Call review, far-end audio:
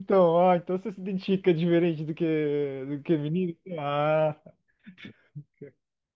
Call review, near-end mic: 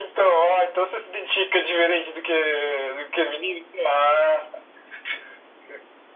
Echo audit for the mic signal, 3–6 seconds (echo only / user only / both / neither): echo only